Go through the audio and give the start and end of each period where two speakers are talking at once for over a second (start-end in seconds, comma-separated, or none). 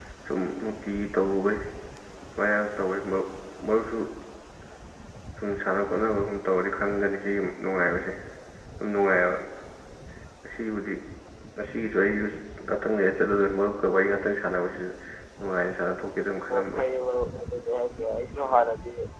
none